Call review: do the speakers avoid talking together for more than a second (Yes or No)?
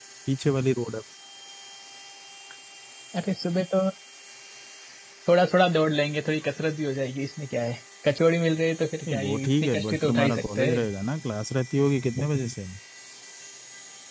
No